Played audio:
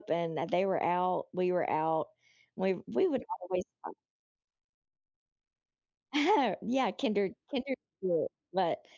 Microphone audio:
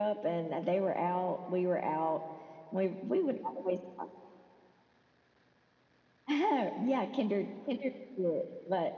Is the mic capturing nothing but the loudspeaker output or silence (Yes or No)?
Yes